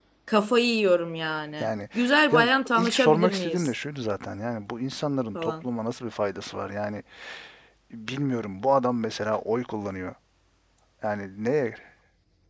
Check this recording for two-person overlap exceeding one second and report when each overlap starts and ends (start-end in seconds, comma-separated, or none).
2.3-3.7